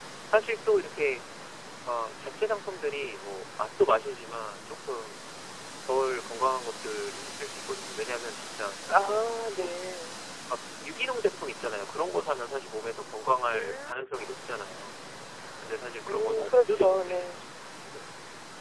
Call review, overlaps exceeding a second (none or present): present